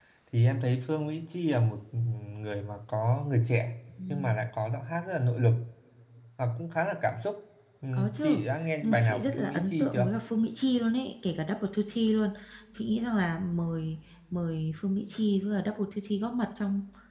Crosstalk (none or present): present